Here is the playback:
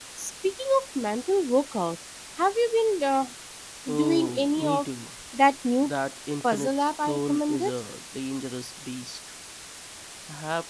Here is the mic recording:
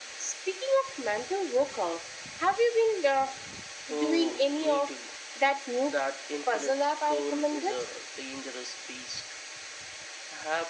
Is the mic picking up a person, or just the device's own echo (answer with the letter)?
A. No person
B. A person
A